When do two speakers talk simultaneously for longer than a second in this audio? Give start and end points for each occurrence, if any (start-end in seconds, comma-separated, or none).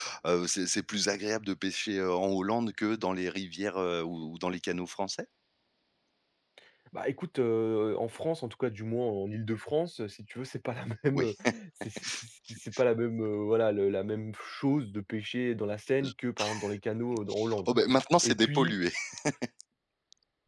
none